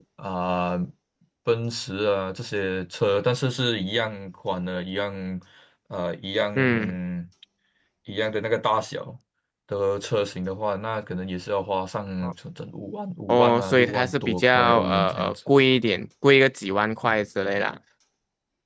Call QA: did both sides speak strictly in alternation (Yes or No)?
No